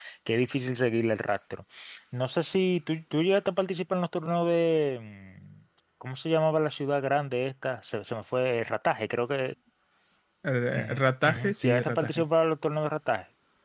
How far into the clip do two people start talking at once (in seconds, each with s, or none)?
10.7 s